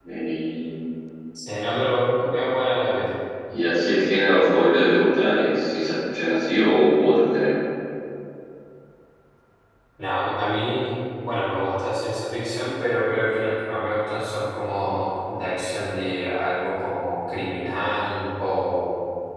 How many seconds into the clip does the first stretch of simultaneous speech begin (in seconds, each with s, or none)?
none